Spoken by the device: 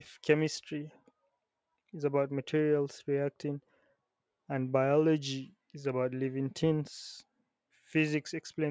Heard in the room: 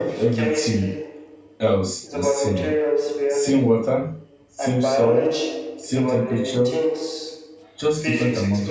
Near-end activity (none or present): present